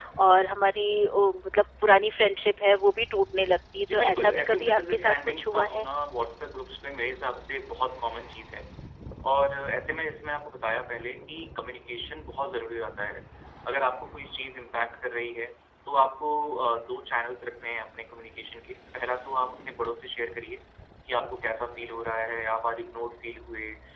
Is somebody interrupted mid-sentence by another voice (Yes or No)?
Yes